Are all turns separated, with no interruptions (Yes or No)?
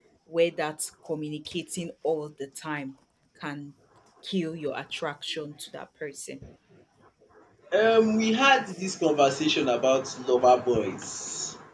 Yes